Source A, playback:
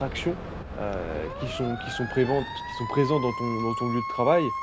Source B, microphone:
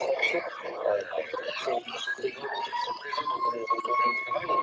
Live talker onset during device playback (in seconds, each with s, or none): none